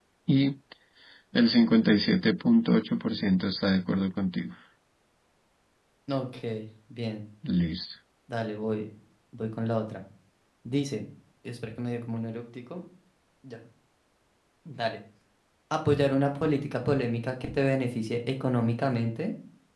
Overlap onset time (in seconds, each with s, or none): none